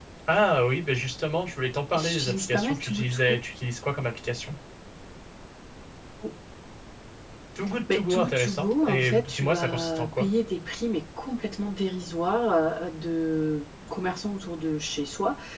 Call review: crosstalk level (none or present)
present